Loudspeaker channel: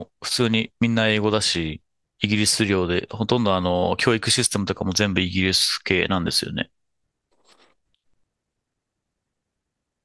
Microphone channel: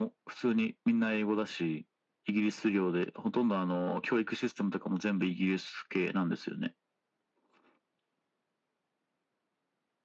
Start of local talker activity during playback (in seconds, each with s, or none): none